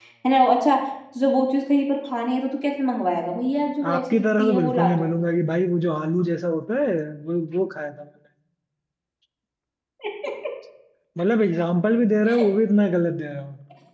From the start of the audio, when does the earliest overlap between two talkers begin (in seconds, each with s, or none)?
3.8 s